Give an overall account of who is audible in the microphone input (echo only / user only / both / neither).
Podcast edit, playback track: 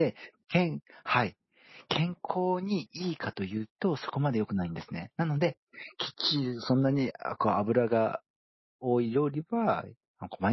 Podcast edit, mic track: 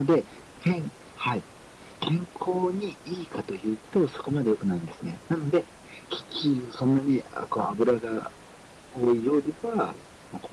echo only